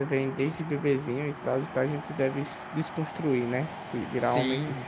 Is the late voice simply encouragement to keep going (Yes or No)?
No